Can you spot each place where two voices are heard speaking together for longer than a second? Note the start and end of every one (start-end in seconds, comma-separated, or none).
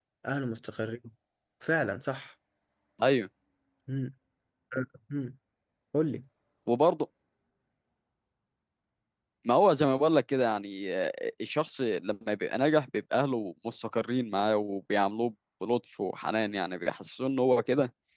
none